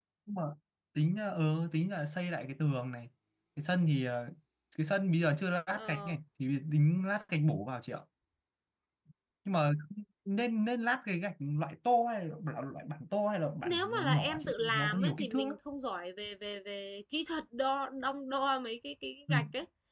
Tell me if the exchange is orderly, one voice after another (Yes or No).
No